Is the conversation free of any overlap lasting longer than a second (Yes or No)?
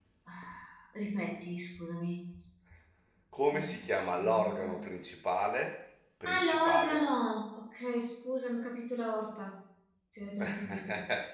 No